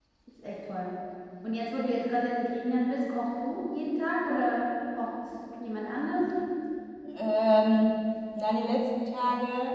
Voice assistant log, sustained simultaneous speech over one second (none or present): none